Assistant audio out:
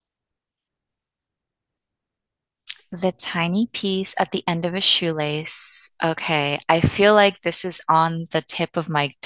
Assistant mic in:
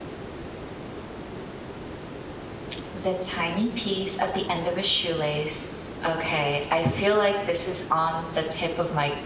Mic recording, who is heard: echo only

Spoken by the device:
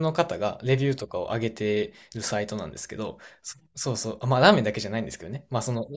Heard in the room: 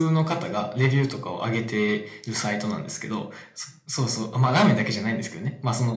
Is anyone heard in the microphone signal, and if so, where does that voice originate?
echo only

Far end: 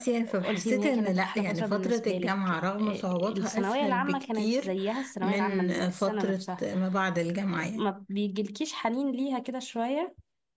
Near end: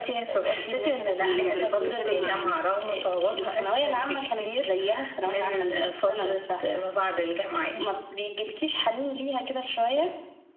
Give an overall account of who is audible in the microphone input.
both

